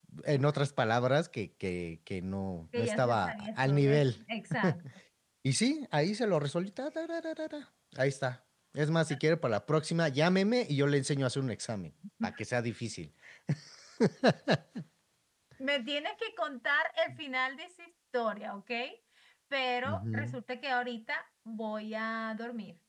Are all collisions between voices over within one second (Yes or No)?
No